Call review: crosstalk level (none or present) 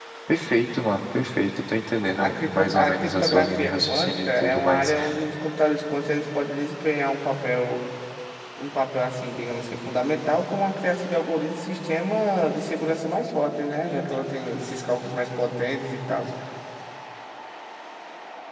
present